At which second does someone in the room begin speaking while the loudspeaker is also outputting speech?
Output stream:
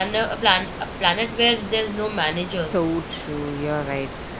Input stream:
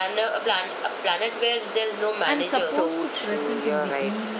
2.3 s

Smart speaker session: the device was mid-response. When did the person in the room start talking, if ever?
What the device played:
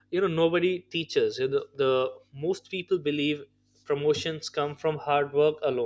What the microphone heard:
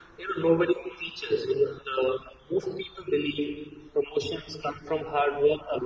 none

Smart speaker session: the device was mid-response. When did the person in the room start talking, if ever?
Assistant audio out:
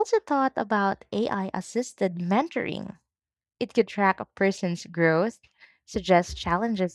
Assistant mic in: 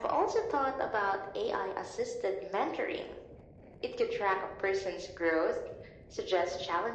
none

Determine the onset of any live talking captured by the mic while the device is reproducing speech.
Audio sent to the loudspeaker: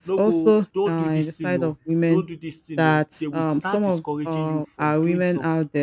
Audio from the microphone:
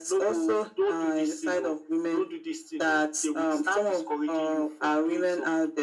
none

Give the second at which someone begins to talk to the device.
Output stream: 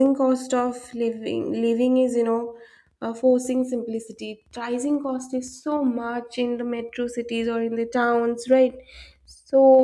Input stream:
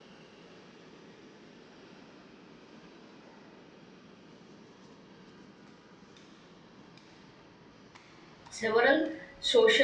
8.5 s

